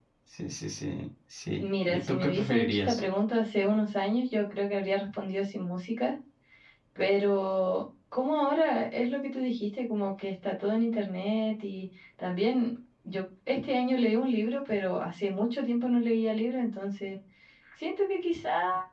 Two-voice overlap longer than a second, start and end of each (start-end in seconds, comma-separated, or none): 1.6-3.0